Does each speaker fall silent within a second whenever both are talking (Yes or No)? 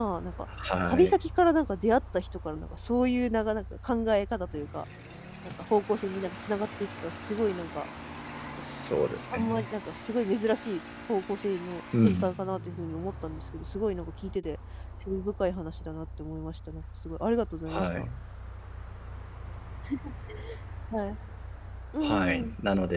Yes